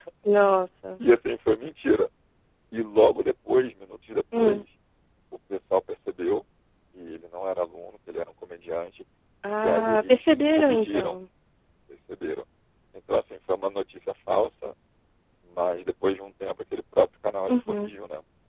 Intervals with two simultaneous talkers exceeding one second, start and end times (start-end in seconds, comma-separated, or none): 9.6-11.2